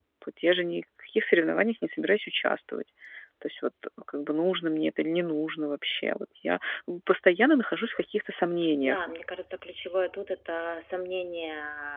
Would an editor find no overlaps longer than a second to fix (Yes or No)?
Yes